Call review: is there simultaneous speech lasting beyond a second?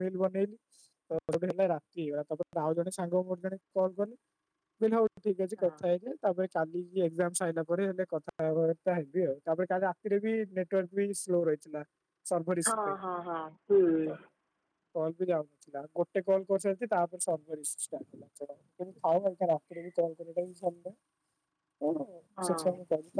No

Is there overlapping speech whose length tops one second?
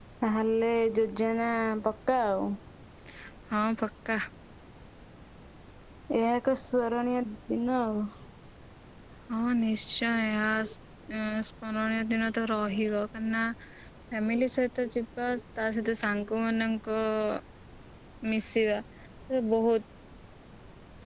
No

